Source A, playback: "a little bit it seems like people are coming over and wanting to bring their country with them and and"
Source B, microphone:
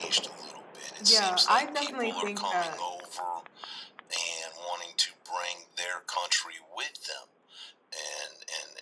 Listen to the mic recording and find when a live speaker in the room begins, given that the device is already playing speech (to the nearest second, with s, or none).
1 s